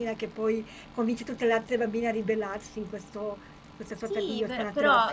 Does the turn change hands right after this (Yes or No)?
Yes